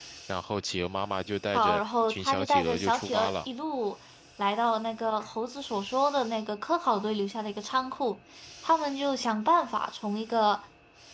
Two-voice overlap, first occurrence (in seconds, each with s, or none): 1.5 s